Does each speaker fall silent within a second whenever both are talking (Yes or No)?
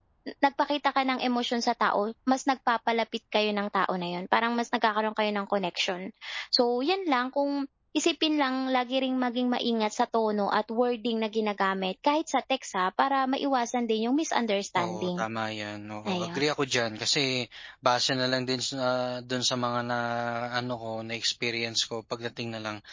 Yes